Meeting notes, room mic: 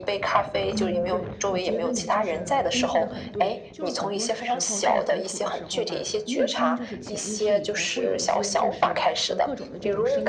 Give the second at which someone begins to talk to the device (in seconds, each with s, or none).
0.7 s